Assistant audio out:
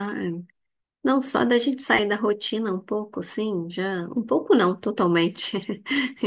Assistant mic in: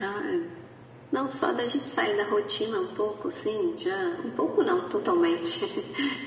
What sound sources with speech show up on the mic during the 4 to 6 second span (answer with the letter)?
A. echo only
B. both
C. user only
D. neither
A